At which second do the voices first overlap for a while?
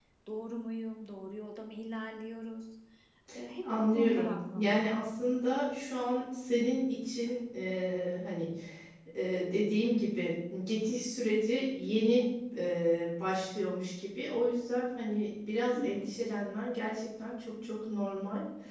4 s

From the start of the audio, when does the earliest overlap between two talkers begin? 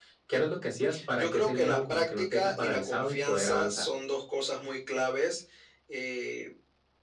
1 s

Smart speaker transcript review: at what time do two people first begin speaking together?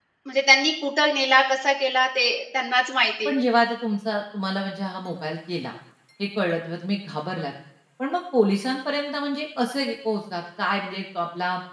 none

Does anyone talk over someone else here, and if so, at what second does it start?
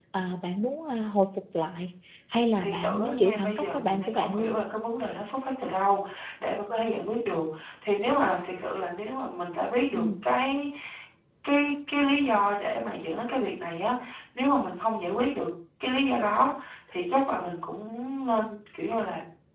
3 s

